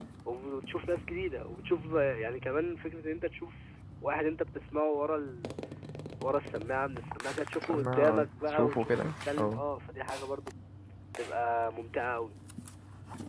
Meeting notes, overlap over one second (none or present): present